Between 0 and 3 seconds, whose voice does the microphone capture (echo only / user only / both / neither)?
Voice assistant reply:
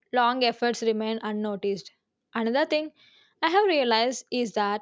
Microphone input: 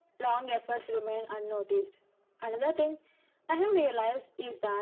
echo only